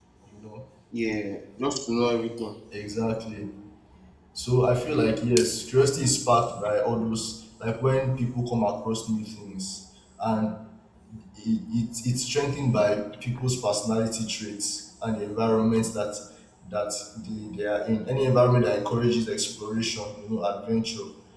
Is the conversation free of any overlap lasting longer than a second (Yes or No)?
Yes